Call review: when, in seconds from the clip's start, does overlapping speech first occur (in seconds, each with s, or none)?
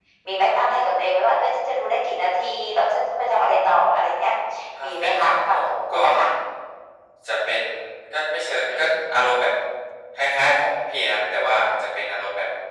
4.8 s